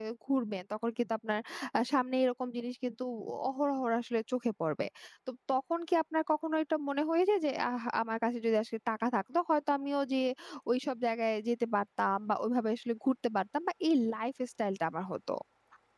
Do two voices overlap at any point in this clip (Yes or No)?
No